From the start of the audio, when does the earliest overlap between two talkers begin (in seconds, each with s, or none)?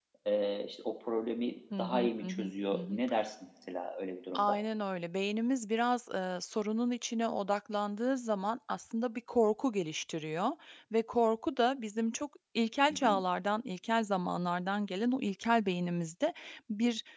1.8 s